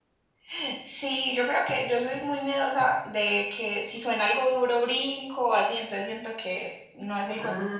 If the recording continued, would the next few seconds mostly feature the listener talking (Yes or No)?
Yes